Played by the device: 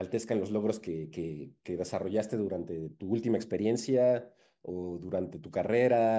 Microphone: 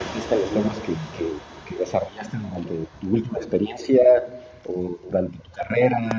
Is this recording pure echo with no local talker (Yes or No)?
Yes